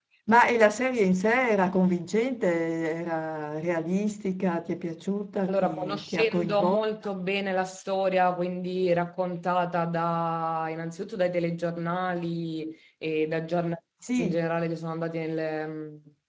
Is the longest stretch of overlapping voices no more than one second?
No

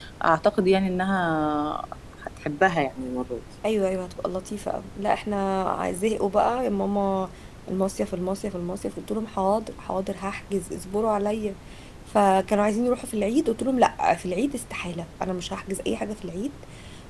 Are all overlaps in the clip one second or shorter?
Yes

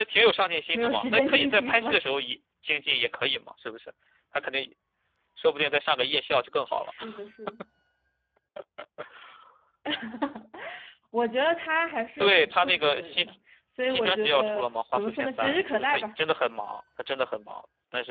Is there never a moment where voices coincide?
No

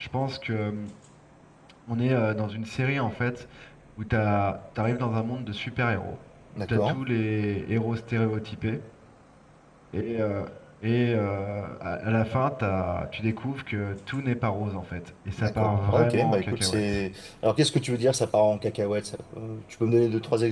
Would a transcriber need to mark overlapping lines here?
Yes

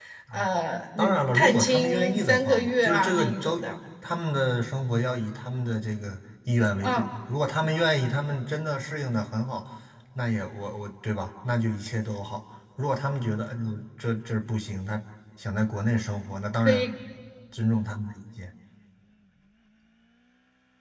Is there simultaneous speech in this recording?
Yes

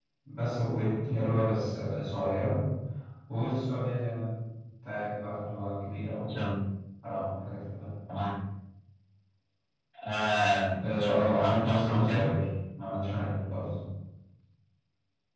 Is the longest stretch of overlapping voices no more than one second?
No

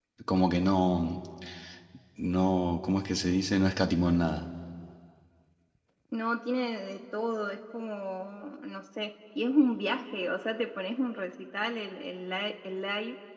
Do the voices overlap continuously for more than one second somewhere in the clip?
No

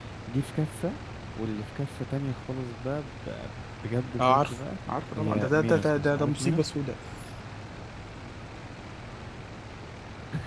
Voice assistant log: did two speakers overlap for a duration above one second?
Yes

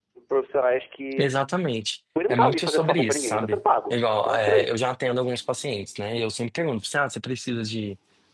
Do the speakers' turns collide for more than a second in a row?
Yes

